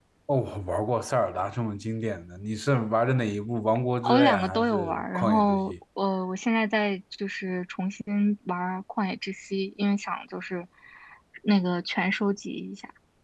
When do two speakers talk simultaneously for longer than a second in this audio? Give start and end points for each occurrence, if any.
4.0-5.7

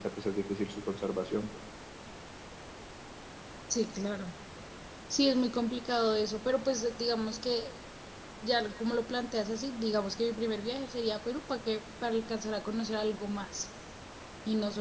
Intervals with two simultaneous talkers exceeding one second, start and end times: none

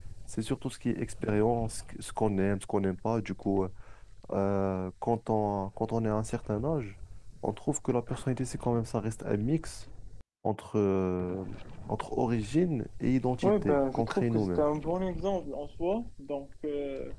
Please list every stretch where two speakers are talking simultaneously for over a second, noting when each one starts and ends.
13.4-14.7

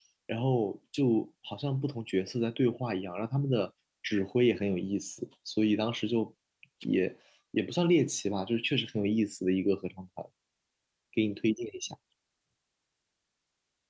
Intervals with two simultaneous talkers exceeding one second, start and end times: none

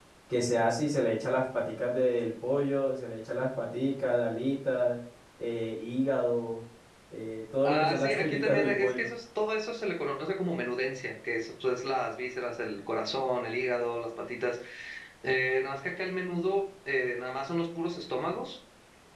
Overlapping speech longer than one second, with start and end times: 7.7-9.1

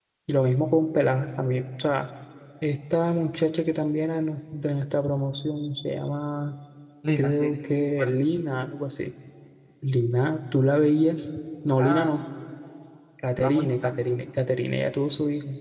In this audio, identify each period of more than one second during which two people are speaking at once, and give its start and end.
none

